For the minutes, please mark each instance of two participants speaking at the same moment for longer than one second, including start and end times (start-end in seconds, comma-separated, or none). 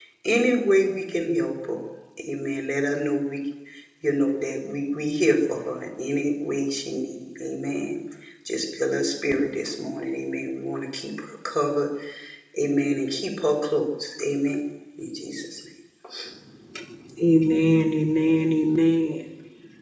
none